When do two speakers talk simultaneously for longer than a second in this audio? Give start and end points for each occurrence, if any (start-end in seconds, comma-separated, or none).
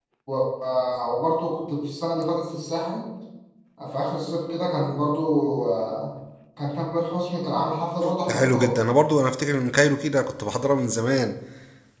none